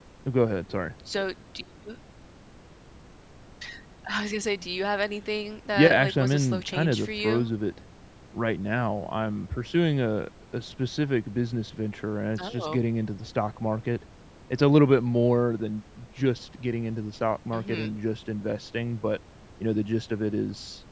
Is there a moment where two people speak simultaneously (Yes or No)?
Yes